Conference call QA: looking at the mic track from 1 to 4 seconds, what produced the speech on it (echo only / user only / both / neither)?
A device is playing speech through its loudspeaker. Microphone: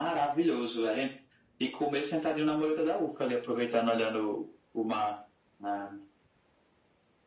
echo only